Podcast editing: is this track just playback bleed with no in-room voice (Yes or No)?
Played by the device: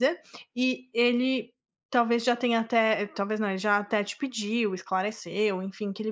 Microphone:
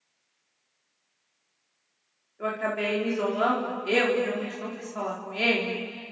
No